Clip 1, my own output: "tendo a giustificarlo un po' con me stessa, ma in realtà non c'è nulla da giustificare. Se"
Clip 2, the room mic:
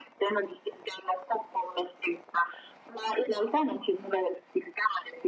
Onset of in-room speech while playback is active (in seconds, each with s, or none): none